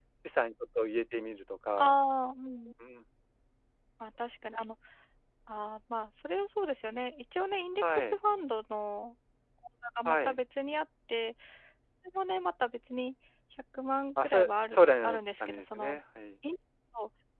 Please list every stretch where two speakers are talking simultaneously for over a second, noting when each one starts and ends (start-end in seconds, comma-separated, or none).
14.2-16.0